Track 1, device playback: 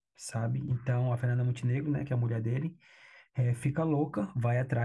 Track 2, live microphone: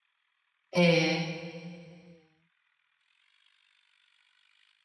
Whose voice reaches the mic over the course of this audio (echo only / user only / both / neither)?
user only